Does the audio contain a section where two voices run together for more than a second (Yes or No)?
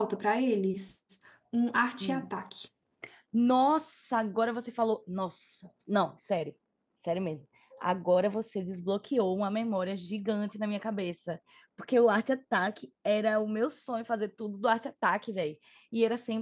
No